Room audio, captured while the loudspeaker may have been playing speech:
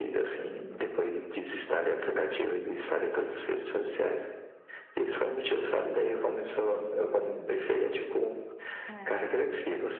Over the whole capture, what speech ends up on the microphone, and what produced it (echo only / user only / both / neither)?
both